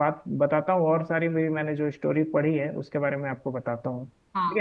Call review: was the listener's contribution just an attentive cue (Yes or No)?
No